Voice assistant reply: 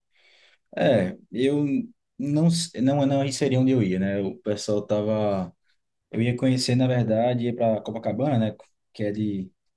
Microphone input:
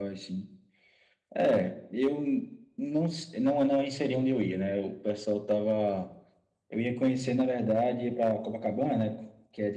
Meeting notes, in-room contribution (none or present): none